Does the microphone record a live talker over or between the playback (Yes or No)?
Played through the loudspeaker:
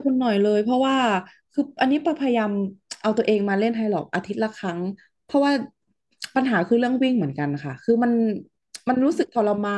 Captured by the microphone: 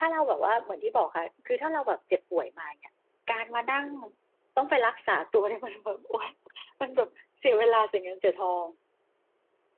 Yes